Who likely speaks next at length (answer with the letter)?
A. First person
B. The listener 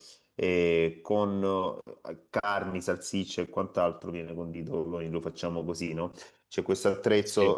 A